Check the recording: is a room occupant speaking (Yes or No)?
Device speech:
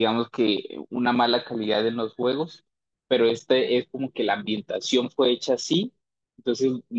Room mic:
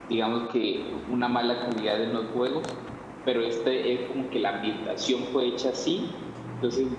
No